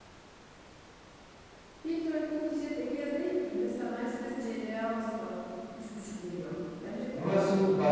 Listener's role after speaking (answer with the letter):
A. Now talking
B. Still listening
A